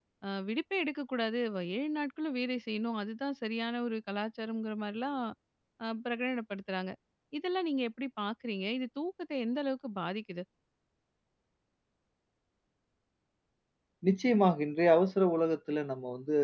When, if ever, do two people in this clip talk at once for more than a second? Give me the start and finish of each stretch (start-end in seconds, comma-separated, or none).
none